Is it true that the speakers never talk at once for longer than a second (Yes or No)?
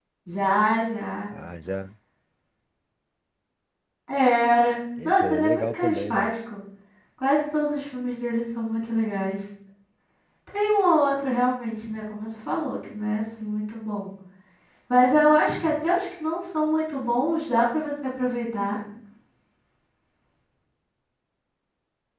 No